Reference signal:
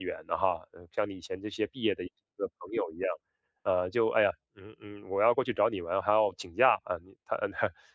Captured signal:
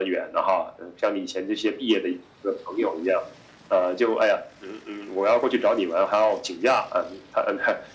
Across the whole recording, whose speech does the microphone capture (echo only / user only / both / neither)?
echo only